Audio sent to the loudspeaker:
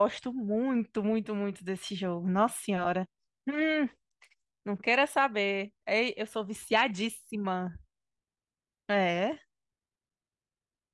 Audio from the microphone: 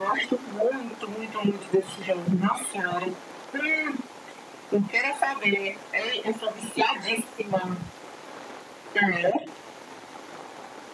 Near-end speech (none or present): none